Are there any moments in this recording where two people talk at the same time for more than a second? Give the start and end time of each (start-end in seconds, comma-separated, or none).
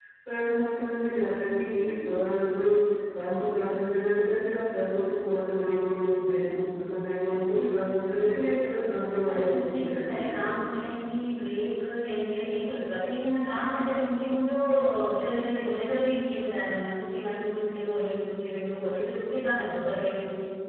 9.2-10.6